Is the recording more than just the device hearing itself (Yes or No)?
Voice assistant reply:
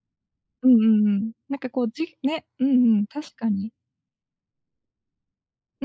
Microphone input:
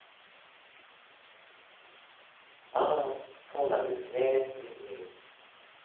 Yes